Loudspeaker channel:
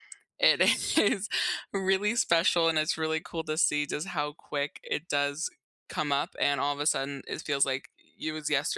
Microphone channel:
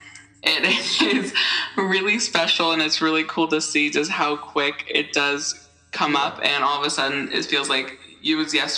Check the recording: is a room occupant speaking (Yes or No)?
Yes